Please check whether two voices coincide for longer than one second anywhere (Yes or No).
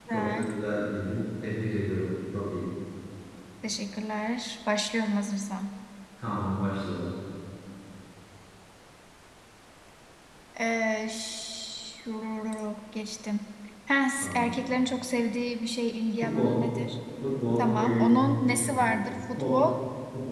Yes